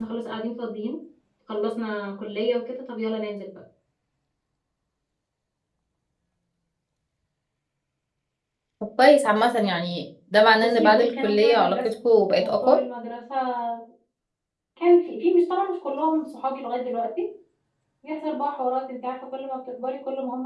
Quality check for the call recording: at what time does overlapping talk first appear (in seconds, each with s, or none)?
10.6 s